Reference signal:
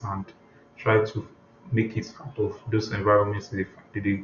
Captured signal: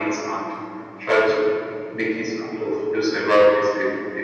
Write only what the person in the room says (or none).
none